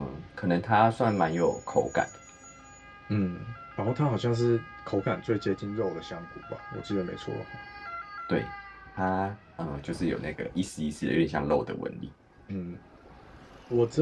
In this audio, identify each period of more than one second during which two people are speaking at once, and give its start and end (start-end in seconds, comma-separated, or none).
none